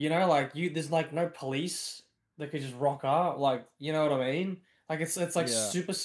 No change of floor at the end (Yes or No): Yes